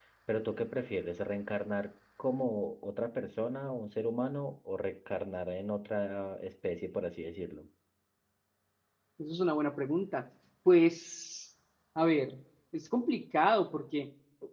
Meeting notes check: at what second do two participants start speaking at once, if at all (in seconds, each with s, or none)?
none